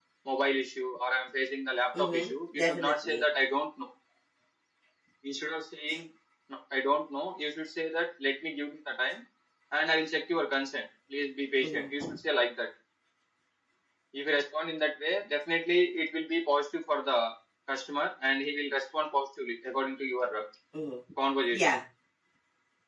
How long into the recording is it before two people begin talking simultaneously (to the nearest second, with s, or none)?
2 s